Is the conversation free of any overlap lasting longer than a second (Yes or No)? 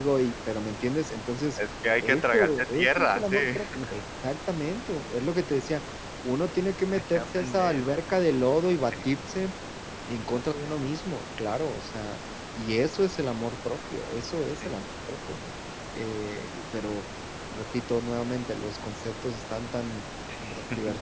No